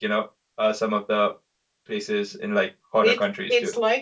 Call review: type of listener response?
taking over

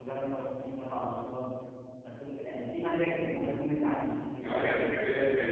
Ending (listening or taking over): taking over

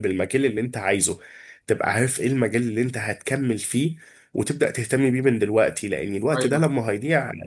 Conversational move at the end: listening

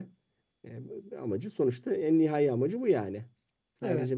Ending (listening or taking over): listening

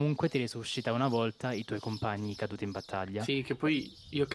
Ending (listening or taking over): taking over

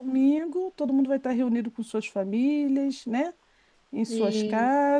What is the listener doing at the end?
listening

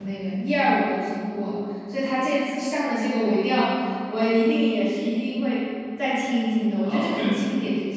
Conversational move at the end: taking over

